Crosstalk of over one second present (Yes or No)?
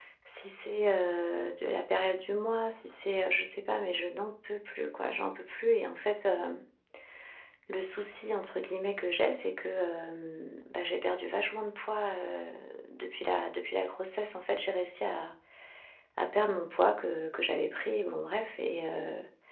No